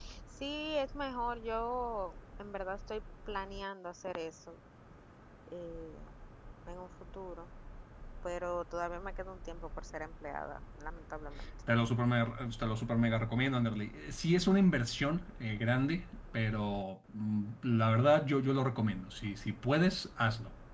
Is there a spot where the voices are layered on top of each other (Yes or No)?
No